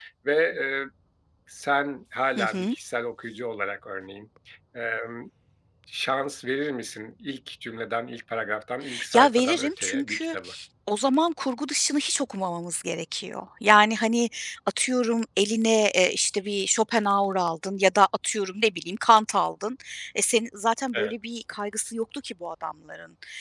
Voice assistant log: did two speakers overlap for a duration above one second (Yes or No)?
Yes